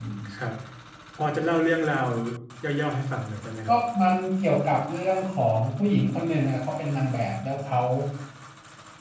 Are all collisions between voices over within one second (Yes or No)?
Yes